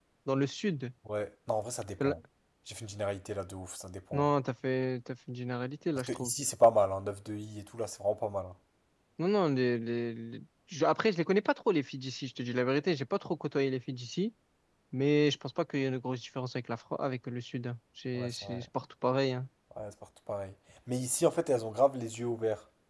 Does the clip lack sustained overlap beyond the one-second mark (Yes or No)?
Yes